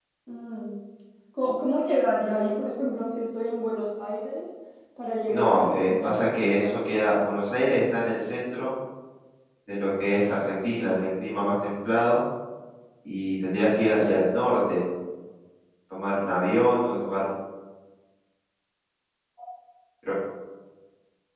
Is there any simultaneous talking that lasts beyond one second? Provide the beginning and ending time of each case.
5.3-7.1

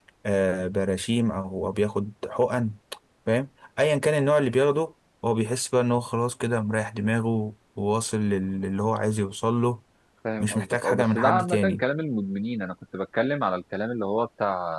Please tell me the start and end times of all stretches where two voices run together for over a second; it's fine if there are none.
10.4-11.8

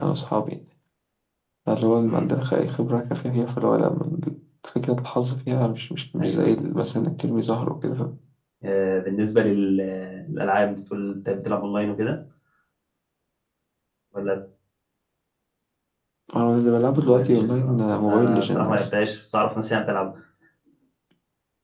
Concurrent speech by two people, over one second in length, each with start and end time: 16.9-18.9

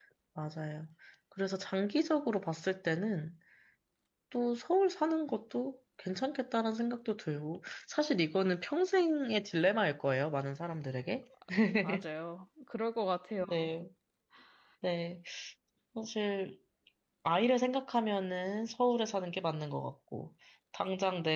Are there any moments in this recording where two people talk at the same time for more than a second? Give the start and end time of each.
none

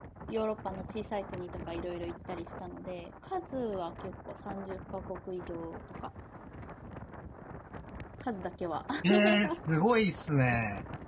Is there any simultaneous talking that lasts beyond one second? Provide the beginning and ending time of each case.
none

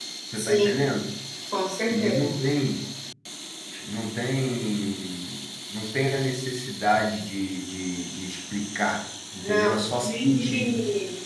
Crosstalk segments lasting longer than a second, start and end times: 9.4-10.8

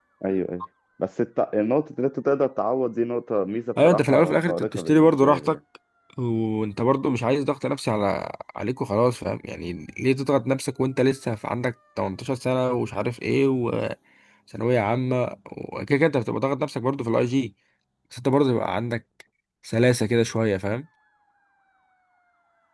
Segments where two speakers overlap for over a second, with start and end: 3.8-5.6

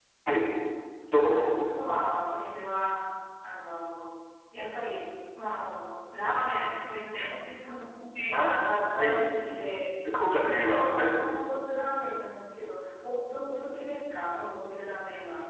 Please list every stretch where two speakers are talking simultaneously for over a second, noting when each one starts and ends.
none

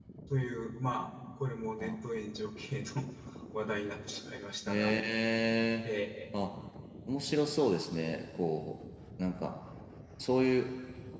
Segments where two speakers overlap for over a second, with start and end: none

